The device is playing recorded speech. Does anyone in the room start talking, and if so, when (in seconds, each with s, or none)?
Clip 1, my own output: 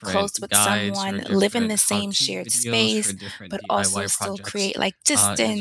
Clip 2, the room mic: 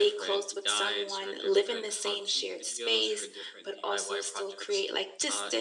none